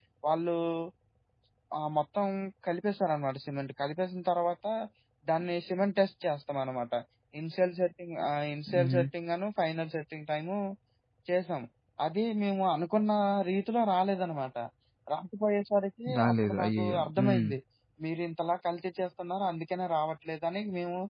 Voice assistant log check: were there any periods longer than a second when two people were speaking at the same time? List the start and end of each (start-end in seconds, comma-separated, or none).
16.2-17.5